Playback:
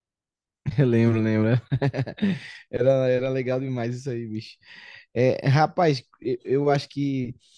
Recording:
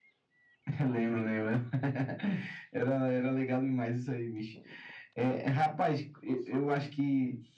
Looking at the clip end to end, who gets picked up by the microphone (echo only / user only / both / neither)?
echo only